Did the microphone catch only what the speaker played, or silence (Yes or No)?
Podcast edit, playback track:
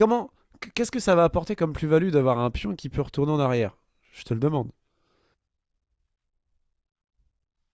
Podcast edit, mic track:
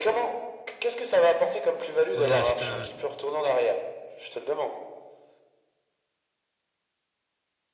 No